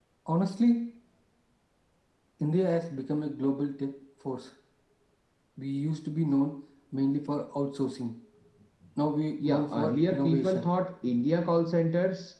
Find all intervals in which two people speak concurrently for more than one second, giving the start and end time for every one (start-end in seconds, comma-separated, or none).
9.4-10.6